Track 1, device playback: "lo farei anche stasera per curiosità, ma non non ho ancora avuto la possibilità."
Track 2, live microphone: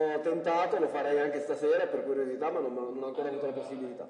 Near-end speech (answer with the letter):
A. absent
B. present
B